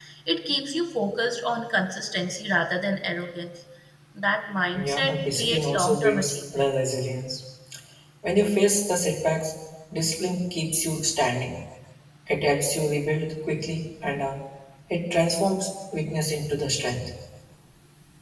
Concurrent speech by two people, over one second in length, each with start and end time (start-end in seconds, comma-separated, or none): 4.7-6.6